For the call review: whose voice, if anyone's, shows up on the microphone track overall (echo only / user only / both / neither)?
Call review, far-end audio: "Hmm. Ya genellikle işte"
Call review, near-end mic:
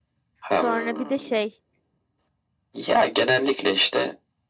both